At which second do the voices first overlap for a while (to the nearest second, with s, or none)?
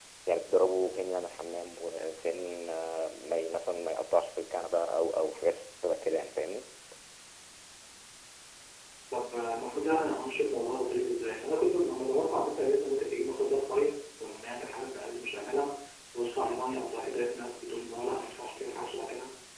none